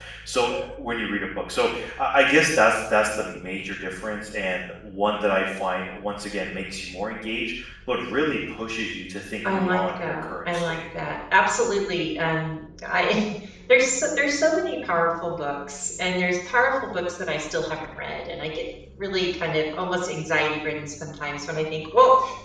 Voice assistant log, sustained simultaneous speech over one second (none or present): present